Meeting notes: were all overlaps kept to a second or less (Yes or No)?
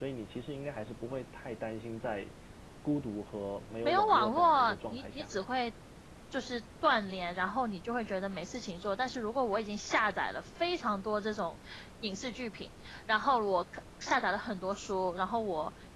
No